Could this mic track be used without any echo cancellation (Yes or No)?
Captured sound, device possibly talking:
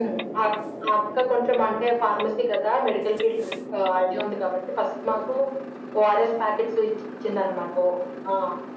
No